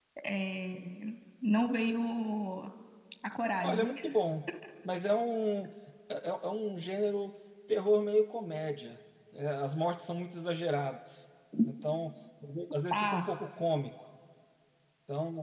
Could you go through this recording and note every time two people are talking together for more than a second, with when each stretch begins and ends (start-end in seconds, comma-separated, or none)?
none